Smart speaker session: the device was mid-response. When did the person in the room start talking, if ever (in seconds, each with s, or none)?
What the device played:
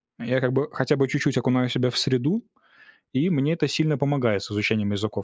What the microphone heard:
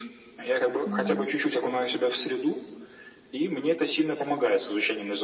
0.8 s